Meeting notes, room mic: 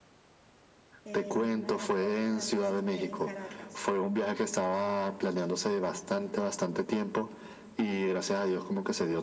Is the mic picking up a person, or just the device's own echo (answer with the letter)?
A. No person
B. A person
B